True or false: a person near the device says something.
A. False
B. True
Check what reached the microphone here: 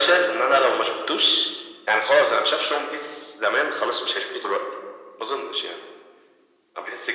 A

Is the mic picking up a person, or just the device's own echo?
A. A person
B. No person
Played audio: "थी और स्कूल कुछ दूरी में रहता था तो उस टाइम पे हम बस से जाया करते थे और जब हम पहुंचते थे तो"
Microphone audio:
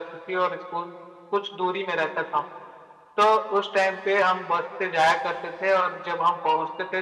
B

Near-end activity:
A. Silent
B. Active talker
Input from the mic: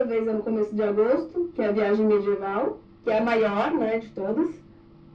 A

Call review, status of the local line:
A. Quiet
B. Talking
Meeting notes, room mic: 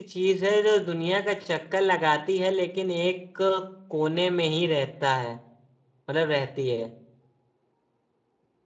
B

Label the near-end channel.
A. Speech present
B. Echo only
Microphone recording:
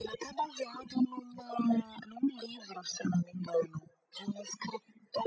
B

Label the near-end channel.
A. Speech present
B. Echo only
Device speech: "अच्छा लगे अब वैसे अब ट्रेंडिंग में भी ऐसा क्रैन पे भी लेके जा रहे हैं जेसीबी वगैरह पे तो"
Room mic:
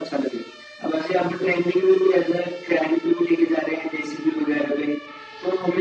B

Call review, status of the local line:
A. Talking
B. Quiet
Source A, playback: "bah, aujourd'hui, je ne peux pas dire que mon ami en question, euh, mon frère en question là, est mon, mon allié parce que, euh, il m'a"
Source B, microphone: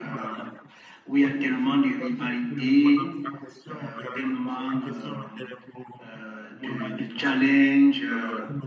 A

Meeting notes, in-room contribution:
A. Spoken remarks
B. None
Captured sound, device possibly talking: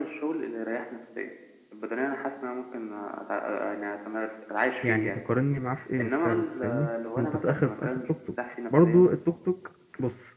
A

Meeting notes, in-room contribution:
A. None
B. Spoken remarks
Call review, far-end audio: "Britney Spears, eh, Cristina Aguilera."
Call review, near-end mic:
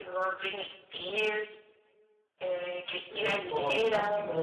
B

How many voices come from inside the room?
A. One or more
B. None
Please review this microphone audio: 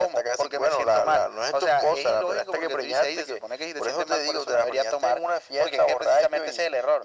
B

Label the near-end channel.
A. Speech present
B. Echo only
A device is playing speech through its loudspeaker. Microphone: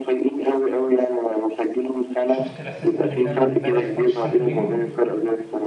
A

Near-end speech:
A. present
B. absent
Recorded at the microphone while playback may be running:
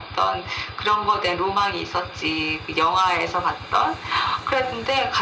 B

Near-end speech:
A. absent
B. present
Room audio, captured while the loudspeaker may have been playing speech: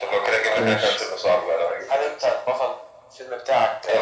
B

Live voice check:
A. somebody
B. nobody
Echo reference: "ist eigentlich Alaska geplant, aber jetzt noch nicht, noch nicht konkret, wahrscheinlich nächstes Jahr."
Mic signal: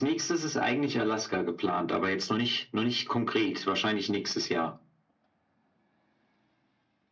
B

